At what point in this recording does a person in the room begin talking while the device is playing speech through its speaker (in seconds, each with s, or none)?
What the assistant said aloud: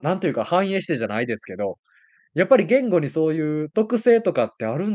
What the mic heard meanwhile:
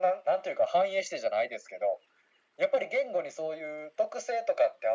none